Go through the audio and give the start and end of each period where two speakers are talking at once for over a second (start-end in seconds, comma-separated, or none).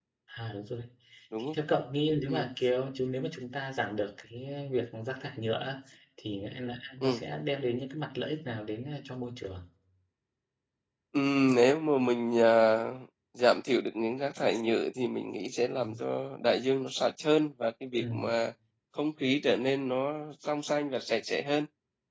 none